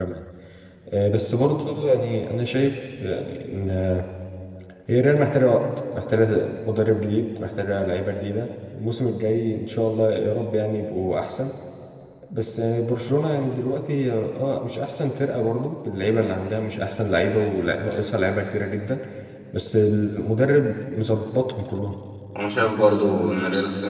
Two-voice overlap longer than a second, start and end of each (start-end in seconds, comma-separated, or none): none